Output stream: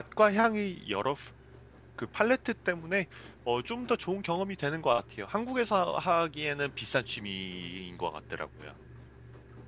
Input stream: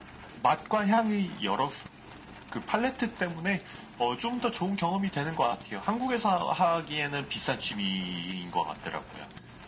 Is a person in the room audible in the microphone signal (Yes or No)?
No